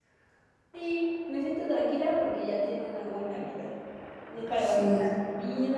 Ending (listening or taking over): listening